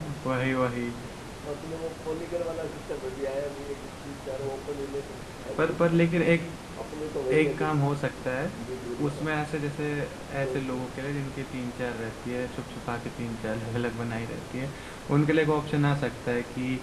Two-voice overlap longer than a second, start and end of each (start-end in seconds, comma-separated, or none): none